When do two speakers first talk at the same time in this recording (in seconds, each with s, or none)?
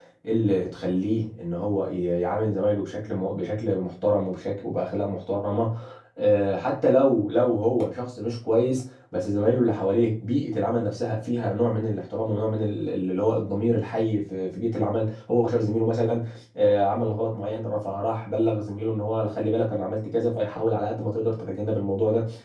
none